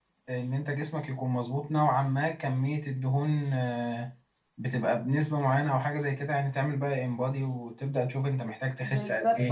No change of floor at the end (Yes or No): No